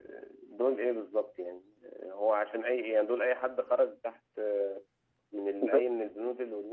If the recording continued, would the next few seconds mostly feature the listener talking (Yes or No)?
No